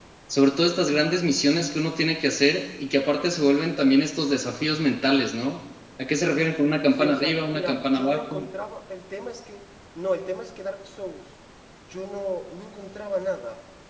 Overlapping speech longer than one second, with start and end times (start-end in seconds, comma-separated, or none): 6.9-8.5